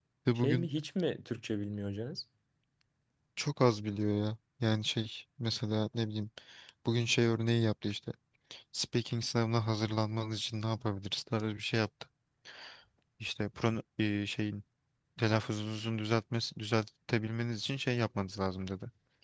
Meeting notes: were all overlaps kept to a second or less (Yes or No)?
Yes